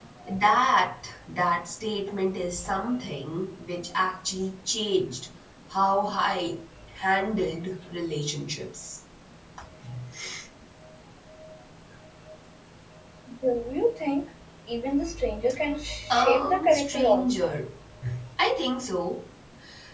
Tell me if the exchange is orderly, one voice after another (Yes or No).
No